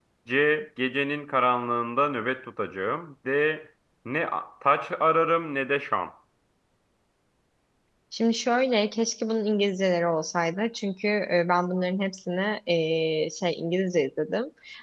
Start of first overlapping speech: none

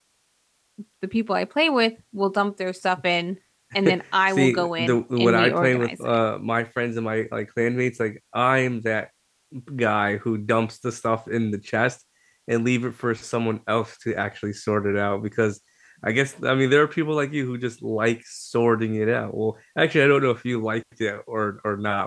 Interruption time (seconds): 4 s

